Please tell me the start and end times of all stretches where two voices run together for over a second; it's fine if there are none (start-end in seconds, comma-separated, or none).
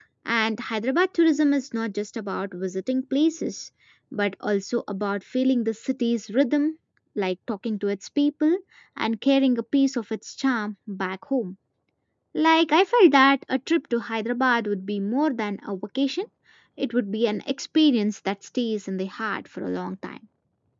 none